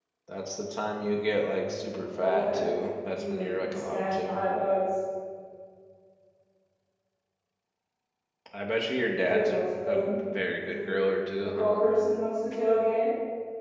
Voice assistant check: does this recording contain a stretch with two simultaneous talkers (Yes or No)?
Yes